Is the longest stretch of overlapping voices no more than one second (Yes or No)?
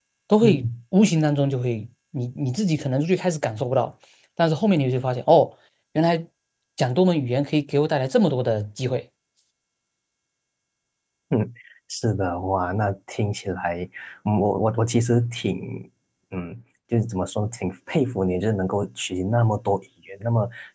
Yes